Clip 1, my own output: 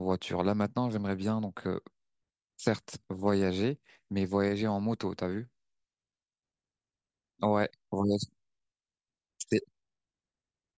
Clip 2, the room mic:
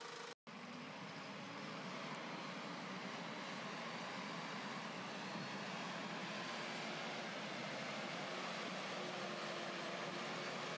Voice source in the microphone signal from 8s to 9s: neither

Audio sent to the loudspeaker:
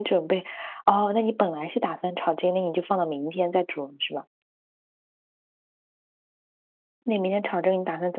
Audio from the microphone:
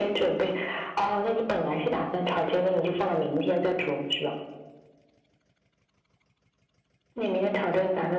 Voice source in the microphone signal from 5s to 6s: neither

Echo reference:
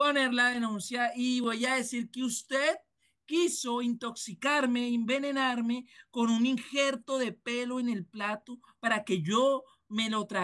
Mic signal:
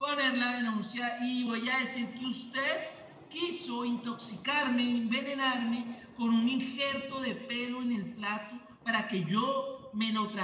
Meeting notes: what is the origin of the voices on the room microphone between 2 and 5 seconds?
echo only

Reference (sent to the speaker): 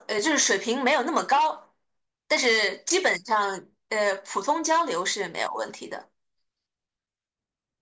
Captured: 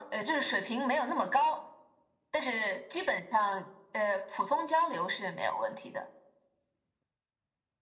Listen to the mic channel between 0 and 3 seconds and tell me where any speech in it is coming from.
echo only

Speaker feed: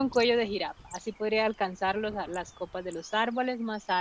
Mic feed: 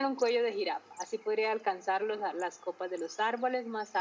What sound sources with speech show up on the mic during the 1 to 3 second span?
echo only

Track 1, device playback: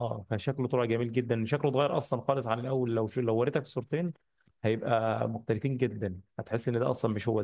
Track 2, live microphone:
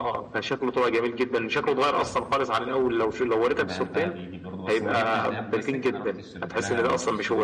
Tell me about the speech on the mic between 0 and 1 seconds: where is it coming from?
echo only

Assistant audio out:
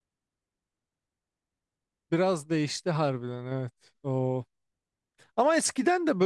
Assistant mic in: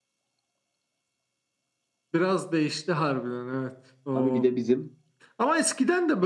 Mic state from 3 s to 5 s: both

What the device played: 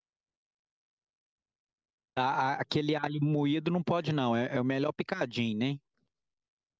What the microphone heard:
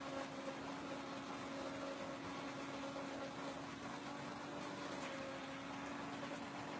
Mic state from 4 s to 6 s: neither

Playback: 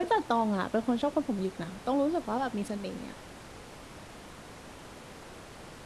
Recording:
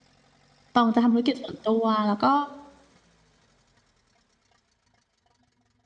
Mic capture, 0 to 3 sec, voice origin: user only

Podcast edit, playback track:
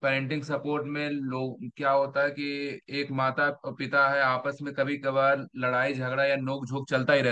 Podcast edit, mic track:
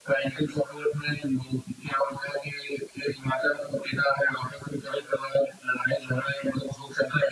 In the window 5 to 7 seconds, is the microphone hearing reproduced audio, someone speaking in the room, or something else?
echo only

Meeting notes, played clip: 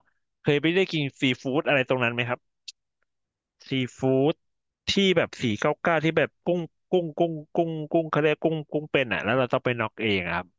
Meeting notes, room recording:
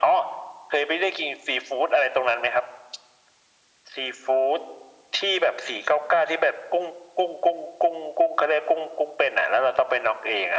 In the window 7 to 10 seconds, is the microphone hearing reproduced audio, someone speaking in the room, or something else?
echo only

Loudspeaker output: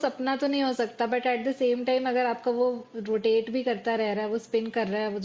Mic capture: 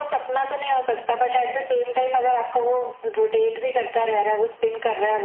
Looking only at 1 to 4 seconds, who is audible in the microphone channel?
echo only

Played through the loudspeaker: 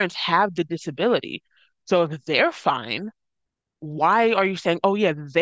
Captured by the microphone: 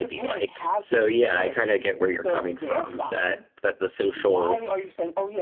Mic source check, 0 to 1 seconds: both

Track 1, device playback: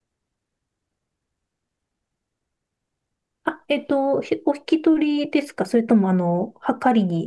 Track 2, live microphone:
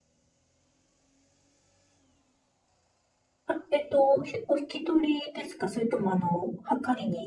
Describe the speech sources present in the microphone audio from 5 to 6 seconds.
echo only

